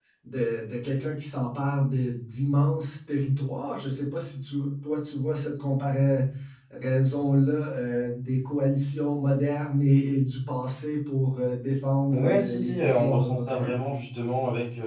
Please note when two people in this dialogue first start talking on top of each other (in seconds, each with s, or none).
12.1 s